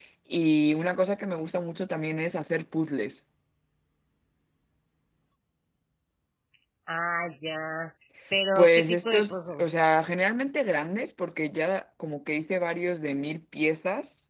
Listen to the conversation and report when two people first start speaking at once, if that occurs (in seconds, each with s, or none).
8.6 s